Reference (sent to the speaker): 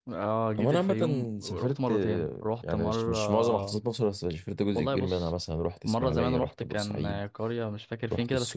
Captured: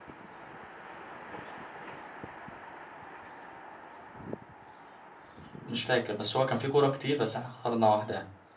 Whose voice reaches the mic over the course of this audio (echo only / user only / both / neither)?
user only